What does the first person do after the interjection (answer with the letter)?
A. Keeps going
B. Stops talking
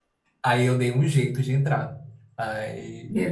A